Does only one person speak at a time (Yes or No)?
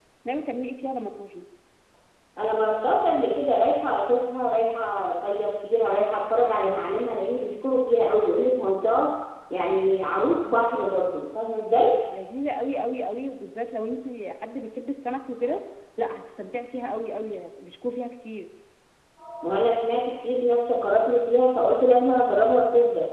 Yes